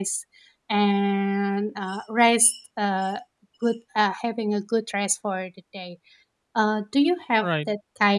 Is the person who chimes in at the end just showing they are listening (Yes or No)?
Yes